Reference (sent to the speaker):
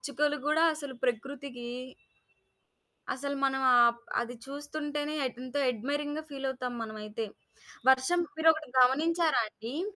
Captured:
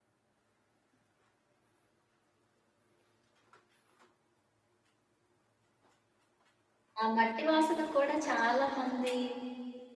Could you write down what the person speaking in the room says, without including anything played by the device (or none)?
ఆ మట్టి వాసన కూడా చాలామంది